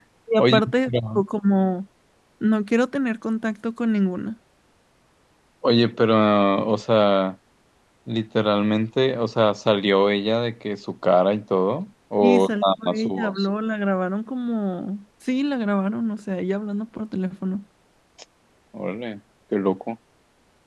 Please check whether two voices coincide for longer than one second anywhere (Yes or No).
Yes